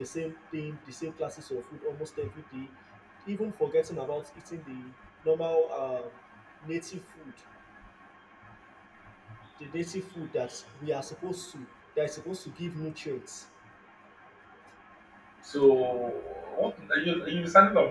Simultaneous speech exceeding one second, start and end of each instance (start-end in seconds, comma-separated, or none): none